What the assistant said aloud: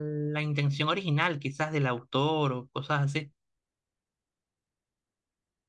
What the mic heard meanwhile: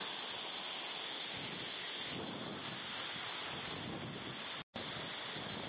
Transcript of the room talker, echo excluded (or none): none